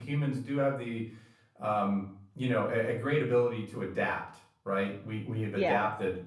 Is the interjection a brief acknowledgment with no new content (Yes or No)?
Yes